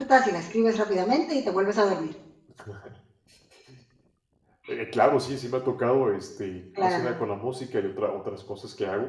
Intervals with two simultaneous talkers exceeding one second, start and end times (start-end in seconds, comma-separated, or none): none